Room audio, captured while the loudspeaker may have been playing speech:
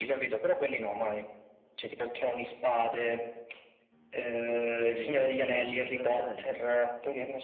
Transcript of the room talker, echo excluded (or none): Perché... Ma dici il Signore degli Anelli?